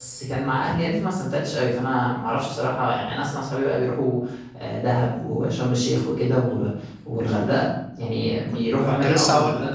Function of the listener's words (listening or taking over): taking over